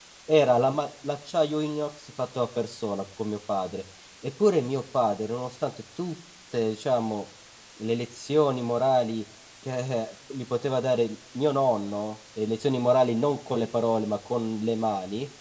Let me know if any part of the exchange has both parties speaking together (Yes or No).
No